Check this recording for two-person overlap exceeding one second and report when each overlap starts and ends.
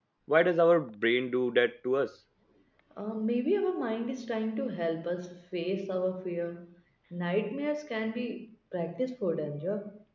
none

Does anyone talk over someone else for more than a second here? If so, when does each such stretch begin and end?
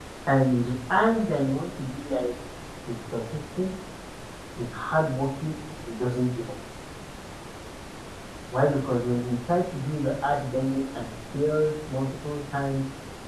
none

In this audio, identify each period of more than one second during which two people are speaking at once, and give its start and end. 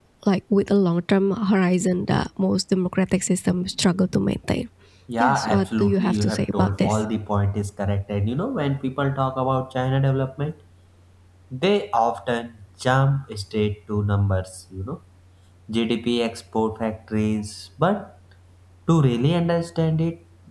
5.2-7.0

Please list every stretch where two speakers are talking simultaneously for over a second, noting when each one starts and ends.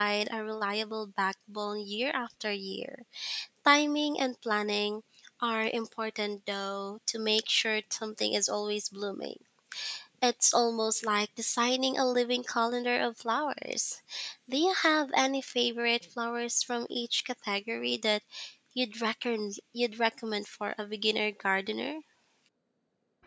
none

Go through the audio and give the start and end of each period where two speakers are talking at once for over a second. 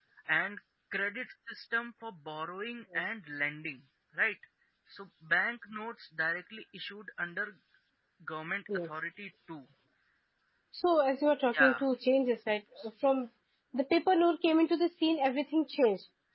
none

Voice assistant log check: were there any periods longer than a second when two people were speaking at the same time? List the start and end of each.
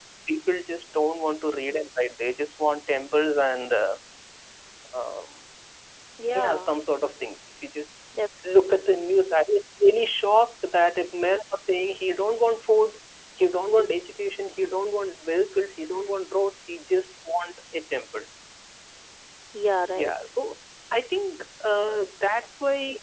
none

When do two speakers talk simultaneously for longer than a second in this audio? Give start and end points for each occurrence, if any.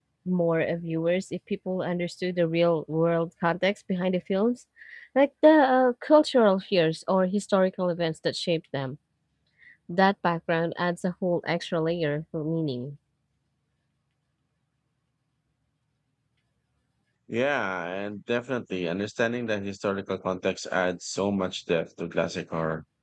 none

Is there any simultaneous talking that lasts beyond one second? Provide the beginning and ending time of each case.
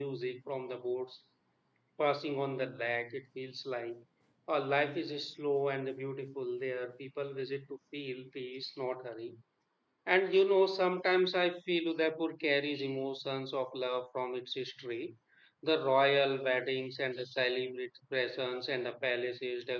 none

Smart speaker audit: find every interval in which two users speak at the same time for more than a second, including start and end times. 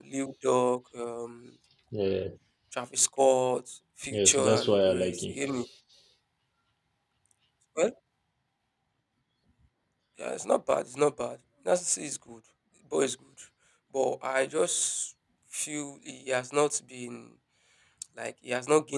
4.1-5.4

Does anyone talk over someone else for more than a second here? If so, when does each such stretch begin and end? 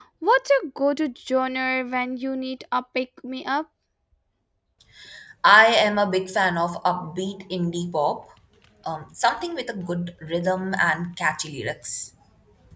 none

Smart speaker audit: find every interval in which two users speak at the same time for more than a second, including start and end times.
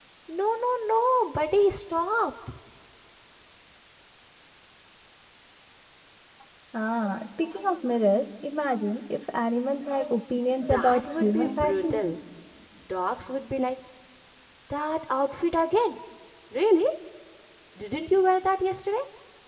10.6-12.0

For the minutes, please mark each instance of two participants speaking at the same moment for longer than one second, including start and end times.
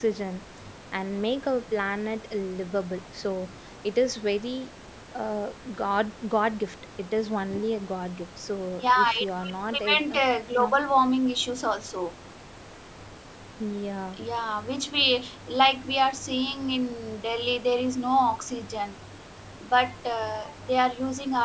8.8-10.2

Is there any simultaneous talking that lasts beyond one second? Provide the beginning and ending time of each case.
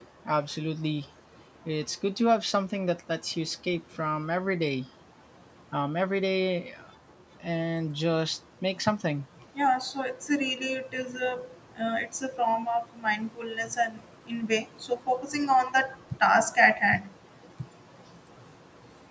none

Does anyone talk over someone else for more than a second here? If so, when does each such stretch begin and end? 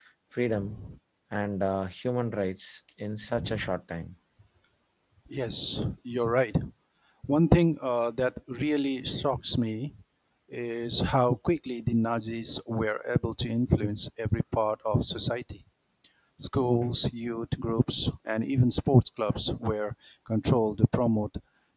none

